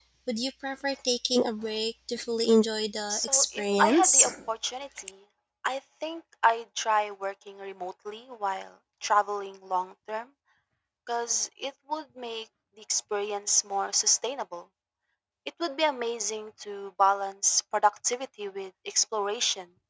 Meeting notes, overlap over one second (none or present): present